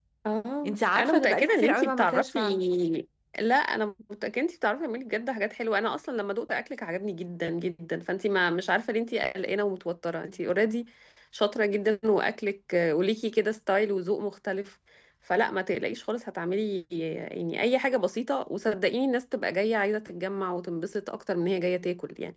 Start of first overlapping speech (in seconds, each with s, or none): 0.7 s